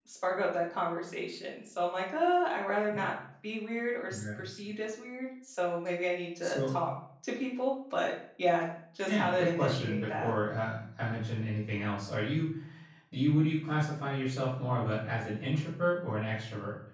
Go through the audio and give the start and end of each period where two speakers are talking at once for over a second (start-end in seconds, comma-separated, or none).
9.0-10.3